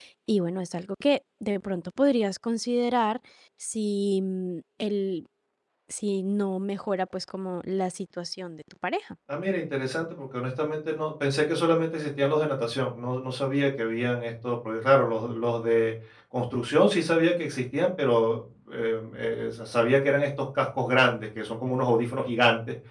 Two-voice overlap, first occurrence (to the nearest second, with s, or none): none